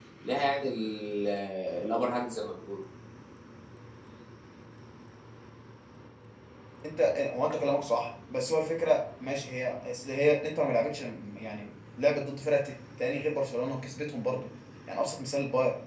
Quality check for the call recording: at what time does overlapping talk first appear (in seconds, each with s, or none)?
none